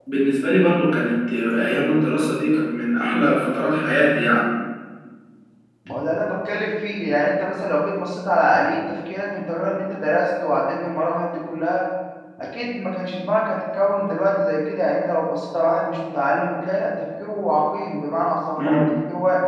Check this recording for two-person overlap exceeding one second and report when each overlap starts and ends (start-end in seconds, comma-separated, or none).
none